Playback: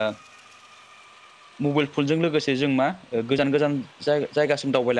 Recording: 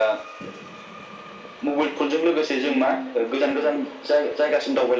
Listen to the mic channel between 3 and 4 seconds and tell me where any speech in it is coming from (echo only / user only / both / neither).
both